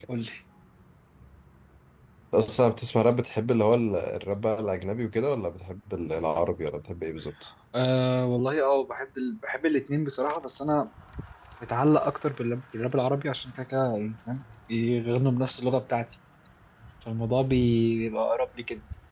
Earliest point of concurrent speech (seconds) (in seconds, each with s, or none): none